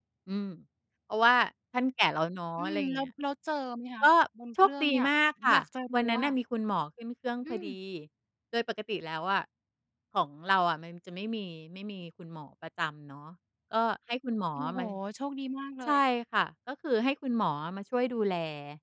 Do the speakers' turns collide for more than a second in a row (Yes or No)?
No